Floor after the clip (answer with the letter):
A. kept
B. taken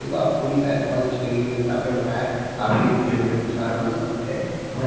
A